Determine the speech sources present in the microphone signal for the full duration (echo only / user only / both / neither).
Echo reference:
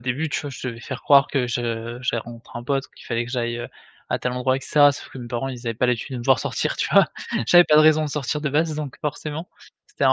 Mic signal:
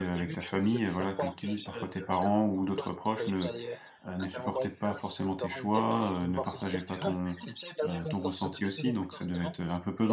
both